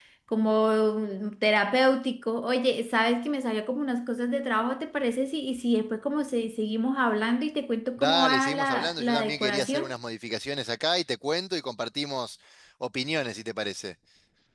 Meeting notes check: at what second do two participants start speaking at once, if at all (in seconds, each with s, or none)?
8.0 s